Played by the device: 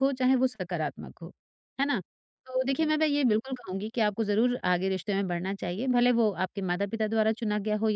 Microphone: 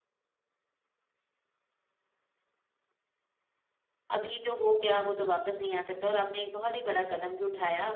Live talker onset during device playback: 4.1 s

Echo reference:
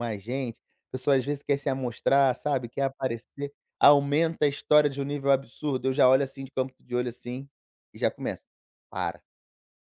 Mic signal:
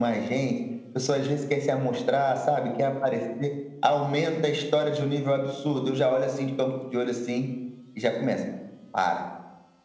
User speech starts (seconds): none

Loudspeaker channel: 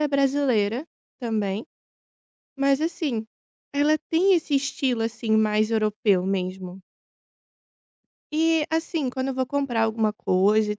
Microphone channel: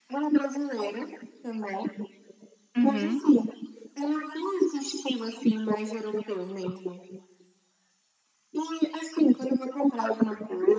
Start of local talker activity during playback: 2.8 s

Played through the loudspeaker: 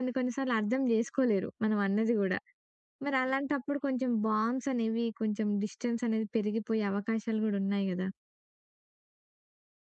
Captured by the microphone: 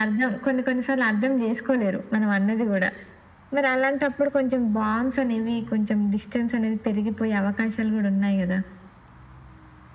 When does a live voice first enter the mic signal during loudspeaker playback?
none

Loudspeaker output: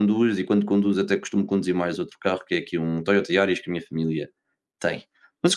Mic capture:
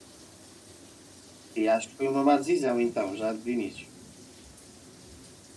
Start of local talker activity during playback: 1.6 s

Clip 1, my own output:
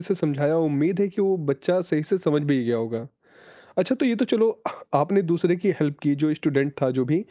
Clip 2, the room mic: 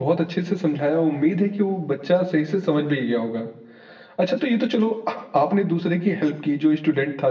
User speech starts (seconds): none

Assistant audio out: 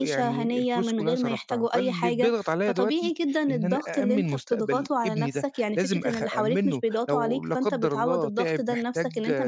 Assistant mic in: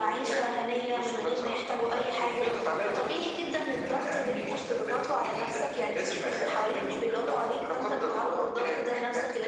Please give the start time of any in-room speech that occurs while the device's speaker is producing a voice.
none

